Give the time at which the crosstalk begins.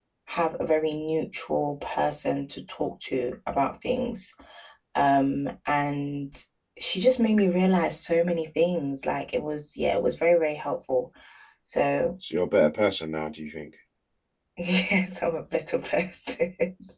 none

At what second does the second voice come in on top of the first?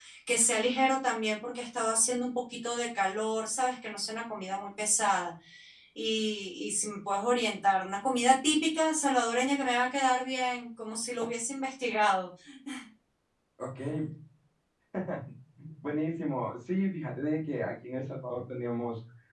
none

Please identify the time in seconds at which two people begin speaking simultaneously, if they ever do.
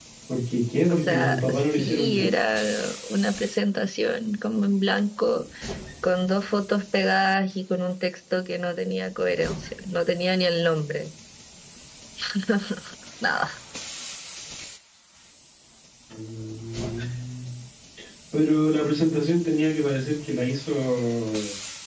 0.9 s

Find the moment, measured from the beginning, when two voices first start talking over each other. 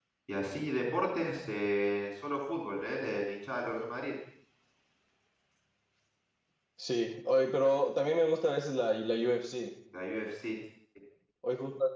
none

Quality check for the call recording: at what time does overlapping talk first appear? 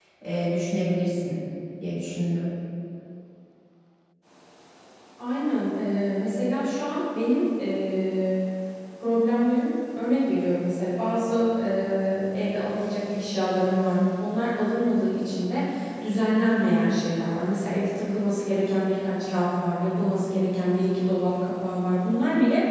none

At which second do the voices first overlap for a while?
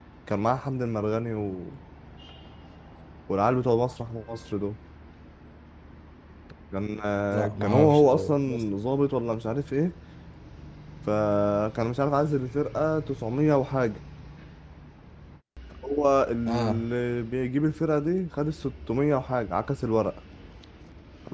7.3 s

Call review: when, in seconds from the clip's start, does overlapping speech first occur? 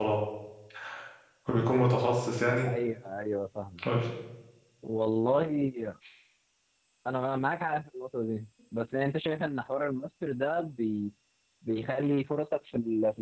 none

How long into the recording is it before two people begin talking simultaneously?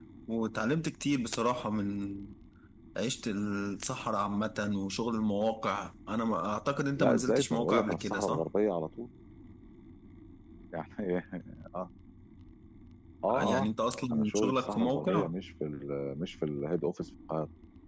7.0 s

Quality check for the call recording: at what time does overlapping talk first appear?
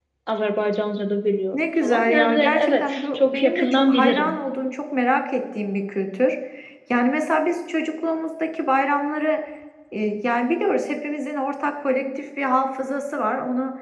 1.5 s

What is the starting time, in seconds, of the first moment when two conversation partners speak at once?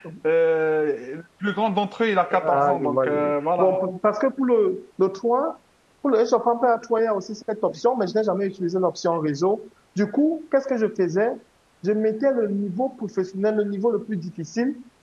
2.2 s

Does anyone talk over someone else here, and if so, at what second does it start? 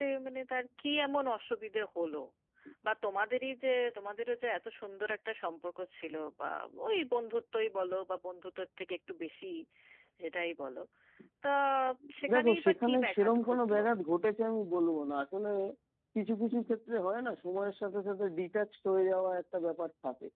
12.3 s

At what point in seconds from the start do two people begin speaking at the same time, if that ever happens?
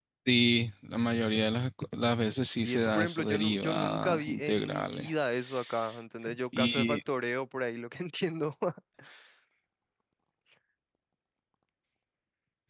2.6 s

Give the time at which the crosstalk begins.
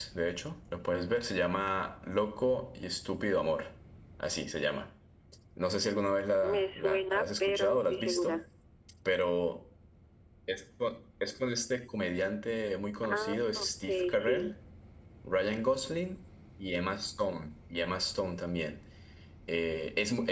6.4 s

